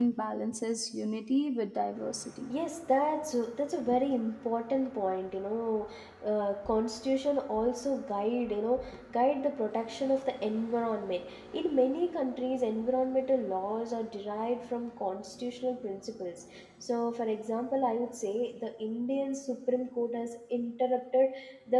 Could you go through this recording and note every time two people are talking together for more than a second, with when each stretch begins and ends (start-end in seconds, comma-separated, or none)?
none